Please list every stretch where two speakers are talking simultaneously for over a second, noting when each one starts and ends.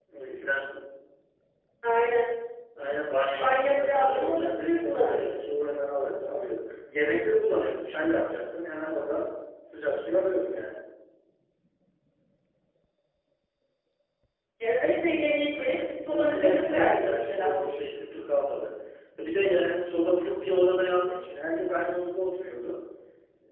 3.4-5.4, 15.6-17.6

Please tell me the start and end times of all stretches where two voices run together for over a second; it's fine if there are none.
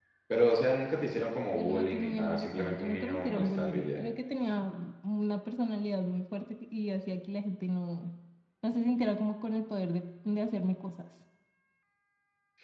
1.6-4.0

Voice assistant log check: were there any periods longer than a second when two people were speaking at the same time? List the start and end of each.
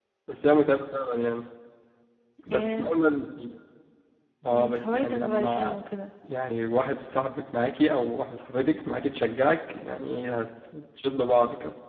4.4-5.8

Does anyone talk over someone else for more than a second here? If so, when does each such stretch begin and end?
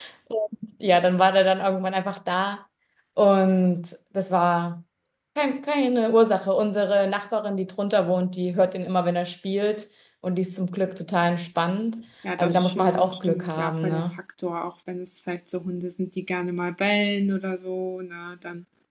12.4-14.0

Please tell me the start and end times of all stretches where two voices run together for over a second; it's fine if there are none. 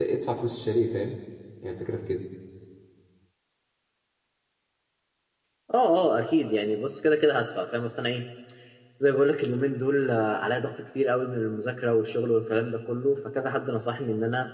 none

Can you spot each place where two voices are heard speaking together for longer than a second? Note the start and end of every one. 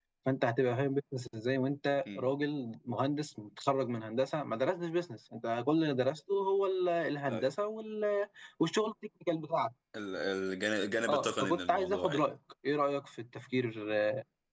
11.1-12.3

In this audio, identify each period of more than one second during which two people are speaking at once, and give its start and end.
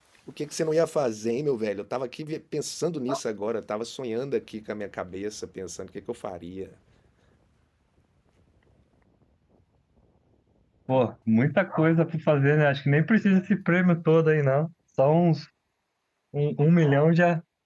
none

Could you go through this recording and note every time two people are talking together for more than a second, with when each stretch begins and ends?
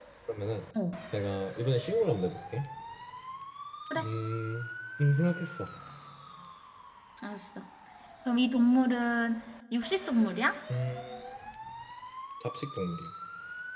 none

